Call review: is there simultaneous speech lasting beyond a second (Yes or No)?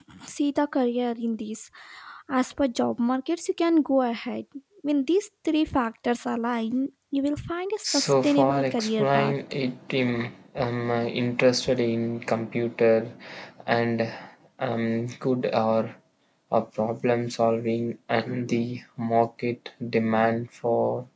Yes